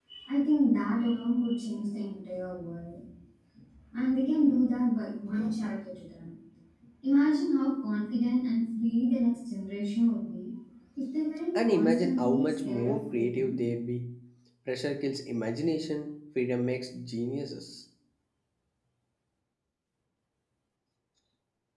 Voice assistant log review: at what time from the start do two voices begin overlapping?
12 s

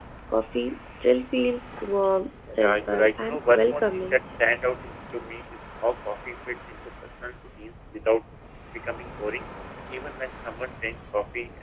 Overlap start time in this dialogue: 3 s

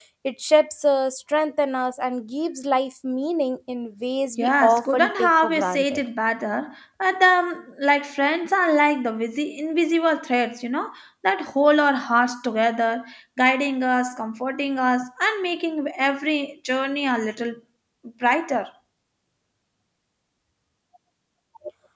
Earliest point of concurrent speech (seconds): 4 s

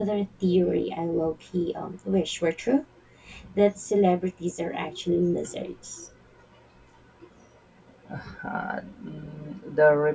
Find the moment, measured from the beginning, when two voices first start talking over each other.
none

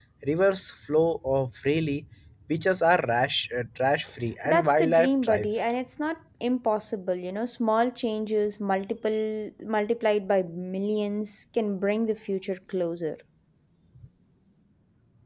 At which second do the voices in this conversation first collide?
4 s

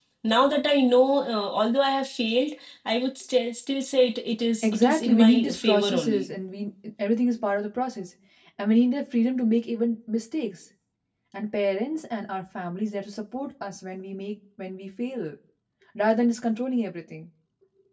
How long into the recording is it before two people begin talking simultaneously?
5 s

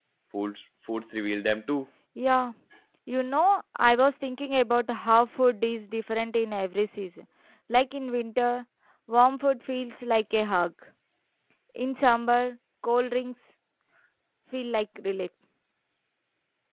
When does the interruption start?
none

